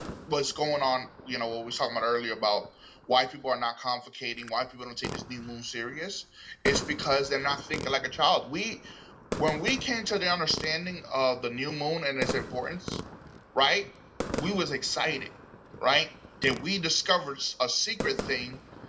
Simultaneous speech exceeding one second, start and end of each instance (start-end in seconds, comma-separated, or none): none